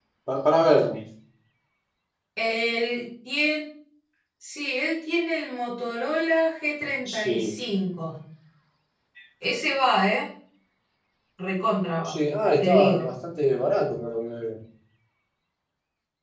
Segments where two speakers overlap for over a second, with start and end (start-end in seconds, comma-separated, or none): none